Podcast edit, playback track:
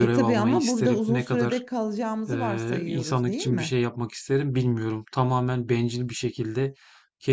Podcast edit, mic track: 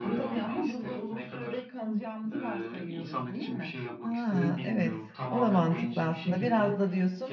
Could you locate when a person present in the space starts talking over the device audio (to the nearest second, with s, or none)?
4 s